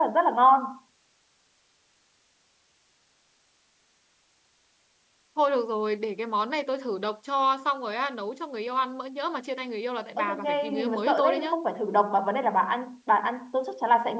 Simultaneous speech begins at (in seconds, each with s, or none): 10.2 s